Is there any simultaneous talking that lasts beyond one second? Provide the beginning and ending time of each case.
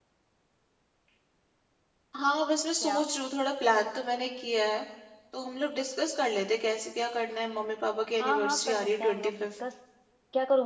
8.2-9.5

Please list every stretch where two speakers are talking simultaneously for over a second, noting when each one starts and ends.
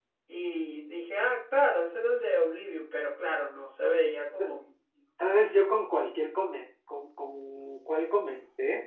none

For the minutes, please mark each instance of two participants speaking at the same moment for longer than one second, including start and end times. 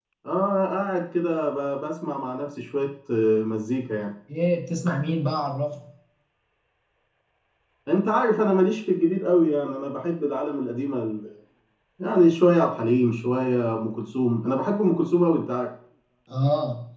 none

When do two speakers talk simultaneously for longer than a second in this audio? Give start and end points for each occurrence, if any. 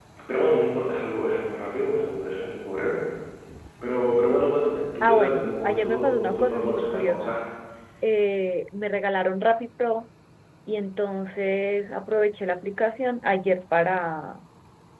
5.0-7.3

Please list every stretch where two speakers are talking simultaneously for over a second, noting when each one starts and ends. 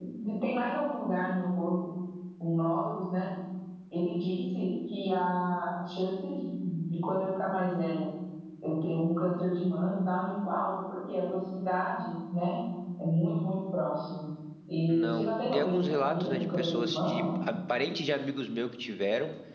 14.9-17.2

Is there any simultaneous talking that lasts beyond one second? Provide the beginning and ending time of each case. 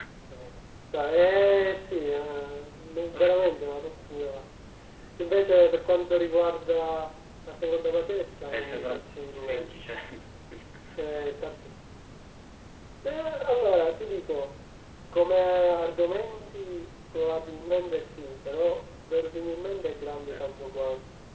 8.5-9.7

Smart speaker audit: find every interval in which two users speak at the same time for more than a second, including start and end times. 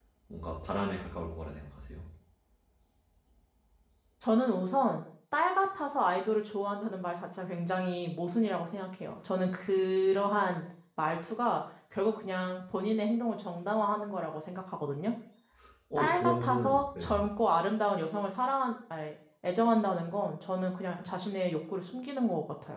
16.0-17.2

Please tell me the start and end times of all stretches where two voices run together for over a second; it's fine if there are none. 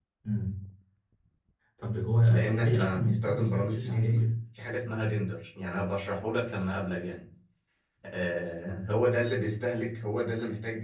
2.3-4.3

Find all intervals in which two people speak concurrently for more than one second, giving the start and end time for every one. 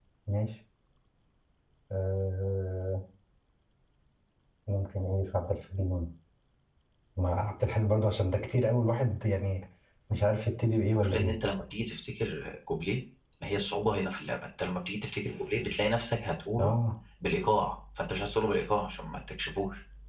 none

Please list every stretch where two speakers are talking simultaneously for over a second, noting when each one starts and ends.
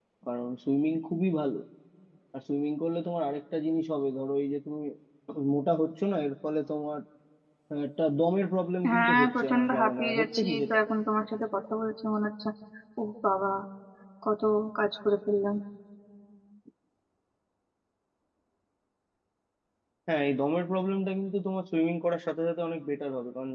8.9-10.8

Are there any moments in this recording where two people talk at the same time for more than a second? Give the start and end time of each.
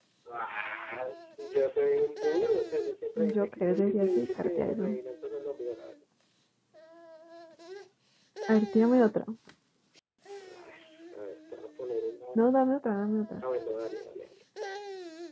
3.2-5.0

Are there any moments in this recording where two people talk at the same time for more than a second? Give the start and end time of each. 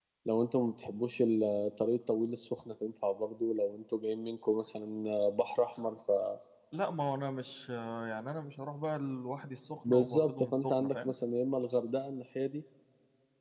9.8-11.1

